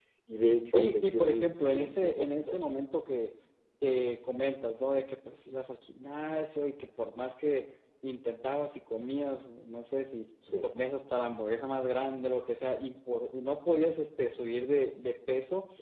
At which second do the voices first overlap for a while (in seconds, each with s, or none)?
0.7 s